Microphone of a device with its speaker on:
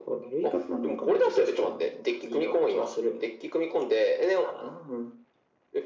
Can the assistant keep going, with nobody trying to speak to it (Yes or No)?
Yes